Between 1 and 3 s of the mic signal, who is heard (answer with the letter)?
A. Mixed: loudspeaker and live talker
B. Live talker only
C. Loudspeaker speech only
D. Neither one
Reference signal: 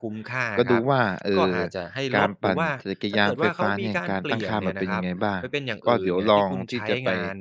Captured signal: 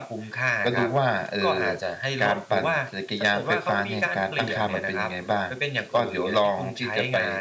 C